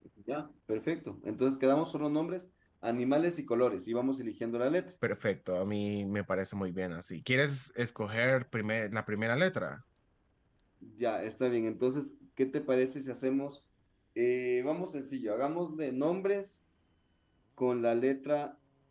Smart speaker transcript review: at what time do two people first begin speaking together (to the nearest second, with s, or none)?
none